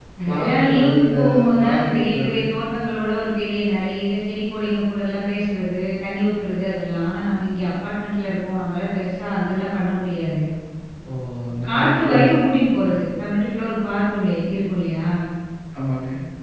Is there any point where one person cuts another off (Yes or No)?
Yes